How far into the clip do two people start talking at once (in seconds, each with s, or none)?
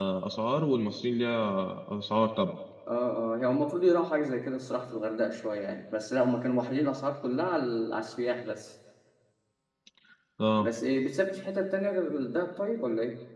none